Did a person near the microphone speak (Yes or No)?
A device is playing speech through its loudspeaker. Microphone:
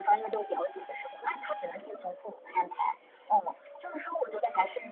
No